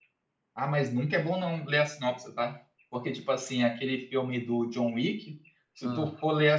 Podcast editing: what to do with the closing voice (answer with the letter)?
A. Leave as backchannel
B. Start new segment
A